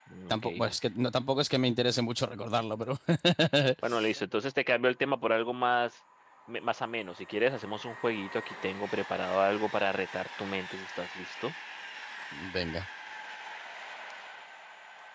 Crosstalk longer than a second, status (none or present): none